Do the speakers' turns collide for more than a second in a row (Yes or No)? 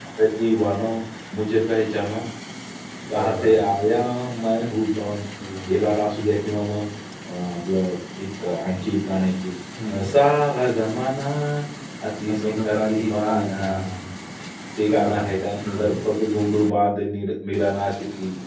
Yes